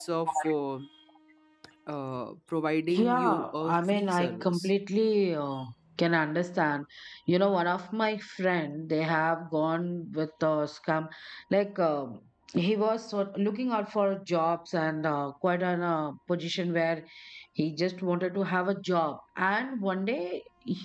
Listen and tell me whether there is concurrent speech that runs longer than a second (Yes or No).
Yes